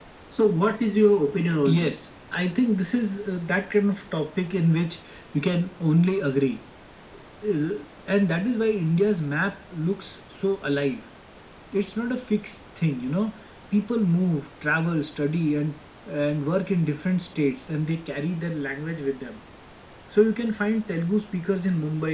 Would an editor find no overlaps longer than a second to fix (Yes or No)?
Yes